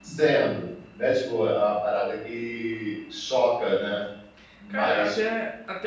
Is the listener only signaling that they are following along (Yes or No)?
No